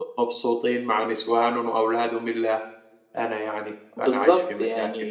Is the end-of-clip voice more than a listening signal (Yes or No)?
Yes